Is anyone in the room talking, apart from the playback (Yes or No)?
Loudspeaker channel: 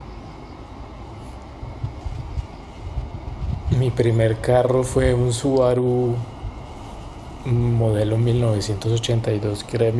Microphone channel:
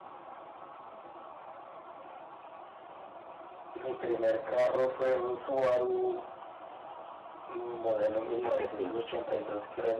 Yes